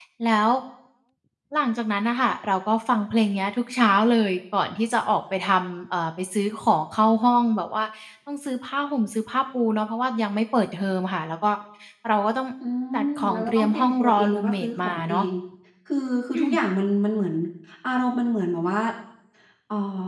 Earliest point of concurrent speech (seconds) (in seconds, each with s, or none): 13.0 s